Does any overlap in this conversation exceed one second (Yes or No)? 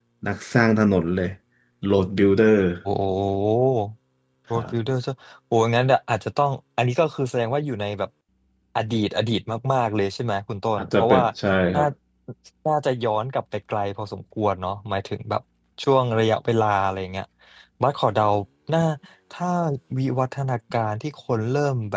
No